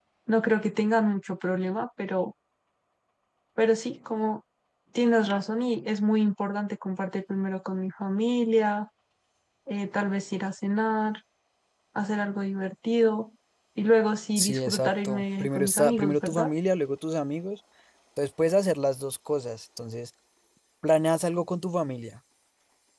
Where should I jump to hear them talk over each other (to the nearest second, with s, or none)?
14 s